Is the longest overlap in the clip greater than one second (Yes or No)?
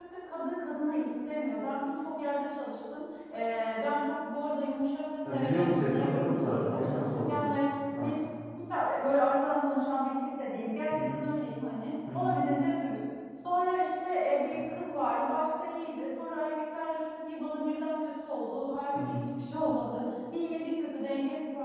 Yes